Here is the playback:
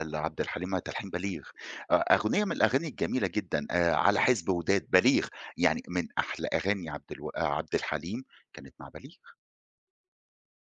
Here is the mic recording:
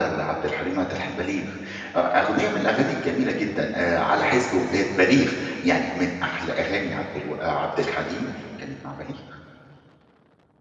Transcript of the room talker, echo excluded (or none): none